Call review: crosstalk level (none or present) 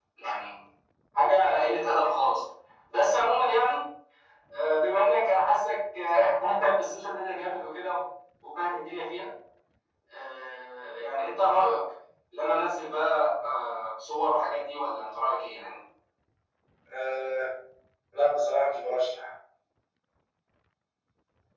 none